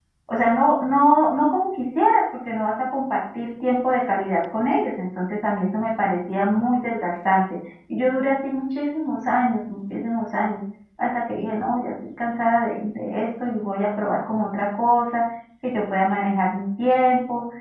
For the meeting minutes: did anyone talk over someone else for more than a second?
No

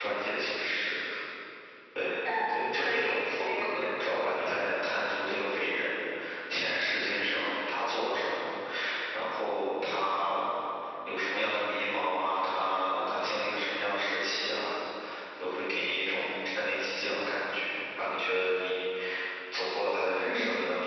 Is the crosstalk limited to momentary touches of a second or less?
No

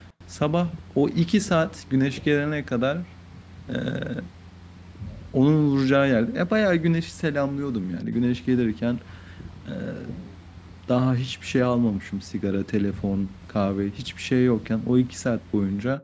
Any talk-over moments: No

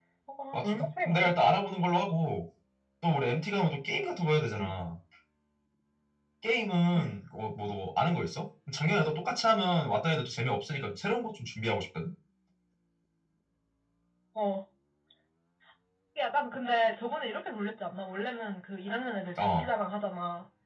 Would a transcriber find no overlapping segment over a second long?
No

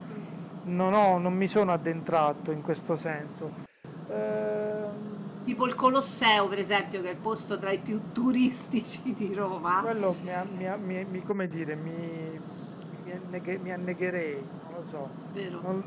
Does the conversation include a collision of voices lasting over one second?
No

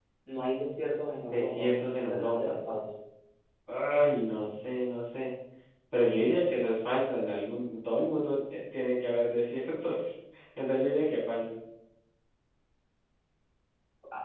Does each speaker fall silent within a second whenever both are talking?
No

